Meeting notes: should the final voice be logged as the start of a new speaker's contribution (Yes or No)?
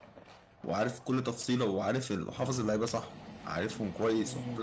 No